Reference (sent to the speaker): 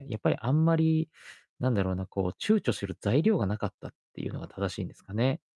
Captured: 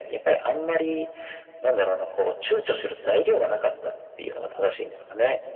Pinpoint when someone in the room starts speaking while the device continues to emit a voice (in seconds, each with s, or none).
none